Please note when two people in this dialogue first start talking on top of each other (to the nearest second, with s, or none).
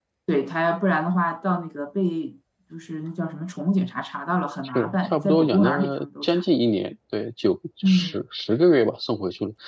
5 s